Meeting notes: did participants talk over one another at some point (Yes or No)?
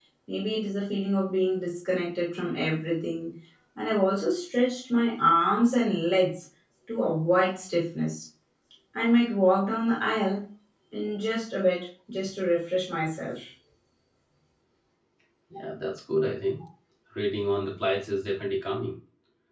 No